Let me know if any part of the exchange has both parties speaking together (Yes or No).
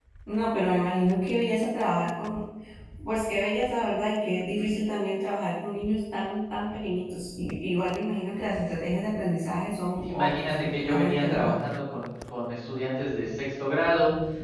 Yes